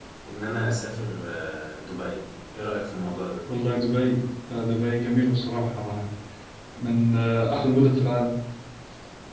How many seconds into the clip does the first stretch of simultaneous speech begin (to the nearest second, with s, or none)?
none